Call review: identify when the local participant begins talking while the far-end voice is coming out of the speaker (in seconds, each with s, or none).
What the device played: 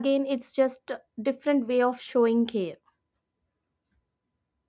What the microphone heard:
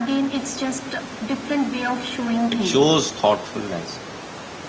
2.5 s